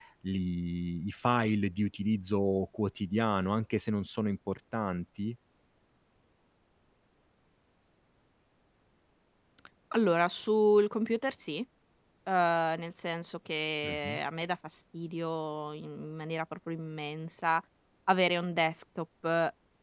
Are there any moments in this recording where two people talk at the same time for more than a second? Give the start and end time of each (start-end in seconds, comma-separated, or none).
none